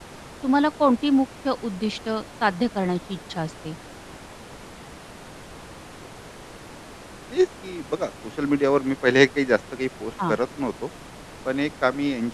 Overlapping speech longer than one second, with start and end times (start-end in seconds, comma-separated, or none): none